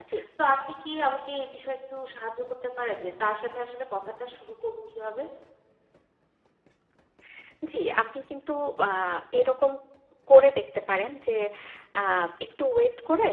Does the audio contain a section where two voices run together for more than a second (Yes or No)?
No